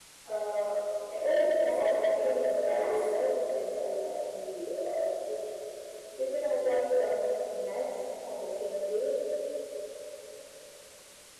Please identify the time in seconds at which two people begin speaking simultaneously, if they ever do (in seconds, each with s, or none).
1.5 s